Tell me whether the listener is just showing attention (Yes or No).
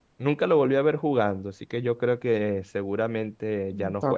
No